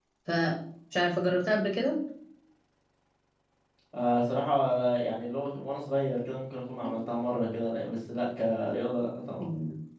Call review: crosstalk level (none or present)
none